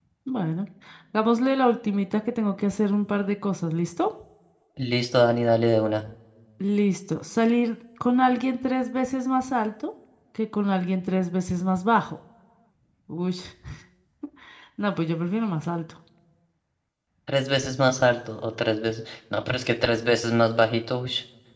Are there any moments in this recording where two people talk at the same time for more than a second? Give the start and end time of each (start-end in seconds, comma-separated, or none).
none